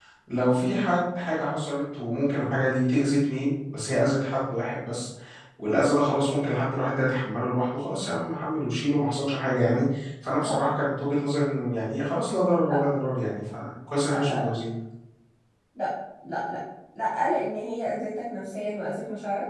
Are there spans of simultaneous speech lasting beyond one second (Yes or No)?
No